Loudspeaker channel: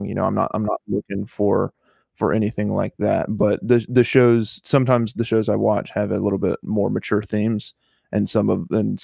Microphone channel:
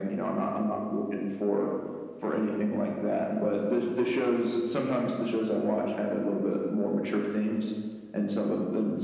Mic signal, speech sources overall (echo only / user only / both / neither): echo only